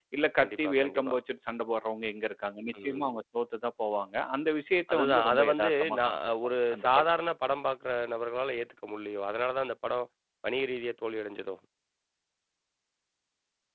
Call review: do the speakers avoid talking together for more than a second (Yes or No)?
No